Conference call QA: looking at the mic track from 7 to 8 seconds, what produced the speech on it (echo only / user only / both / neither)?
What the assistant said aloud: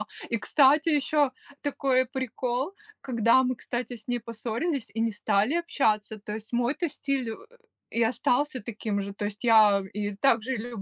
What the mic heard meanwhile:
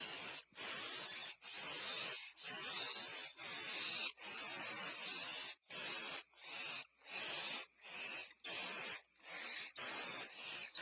neither